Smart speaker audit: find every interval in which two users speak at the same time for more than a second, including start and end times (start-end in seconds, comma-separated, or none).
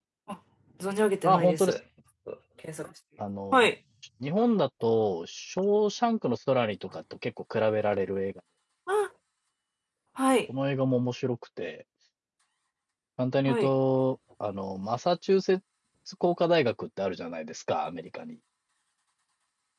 none